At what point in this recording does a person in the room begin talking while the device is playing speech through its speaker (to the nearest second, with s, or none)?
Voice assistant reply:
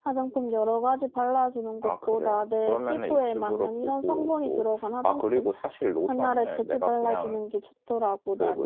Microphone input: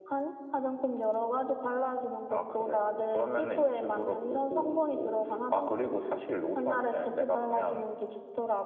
none